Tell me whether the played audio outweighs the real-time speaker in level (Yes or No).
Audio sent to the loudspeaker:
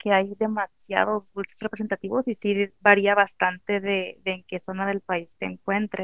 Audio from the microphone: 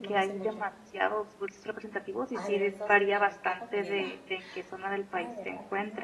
Yes